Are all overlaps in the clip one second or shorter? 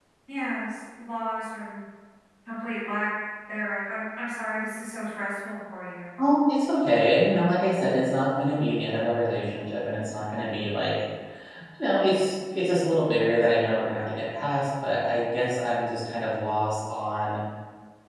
Yes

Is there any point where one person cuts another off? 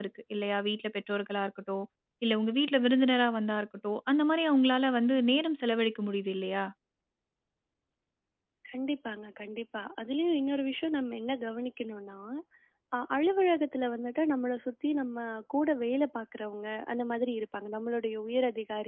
No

